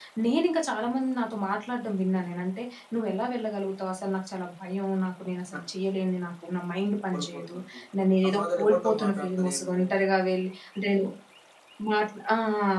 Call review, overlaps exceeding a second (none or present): present